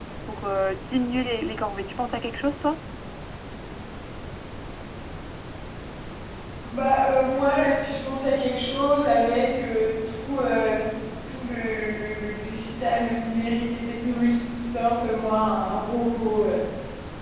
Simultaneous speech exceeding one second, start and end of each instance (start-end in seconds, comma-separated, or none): none